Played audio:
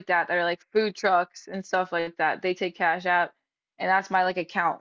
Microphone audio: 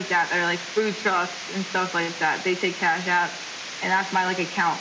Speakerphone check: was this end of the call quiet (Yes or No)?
Yes